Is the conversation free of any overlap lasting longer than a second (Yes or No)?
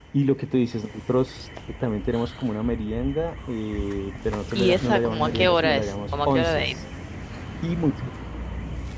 No